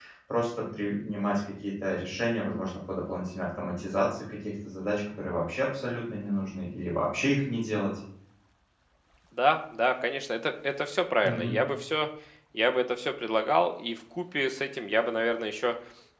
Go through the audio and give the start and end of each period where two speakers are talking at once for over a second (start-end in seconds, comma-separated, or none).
none